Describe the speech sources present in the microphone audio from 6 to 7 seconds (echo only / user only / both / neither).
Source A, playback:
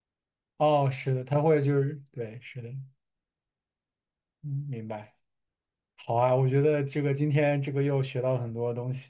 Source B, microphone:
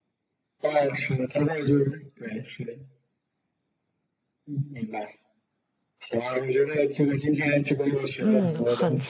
echo only